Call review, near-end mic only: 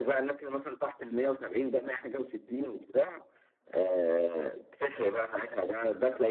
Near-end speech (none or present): none